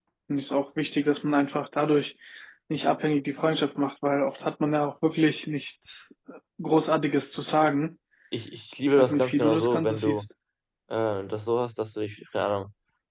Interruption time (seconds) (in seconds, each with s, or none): 8.9 s